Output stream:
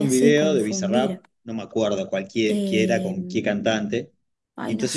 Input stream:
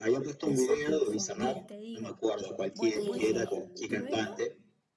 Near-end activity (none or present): present